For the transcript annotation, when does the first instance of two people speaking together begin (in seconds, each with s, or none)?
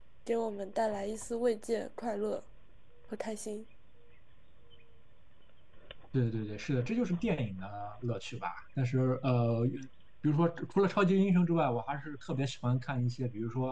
none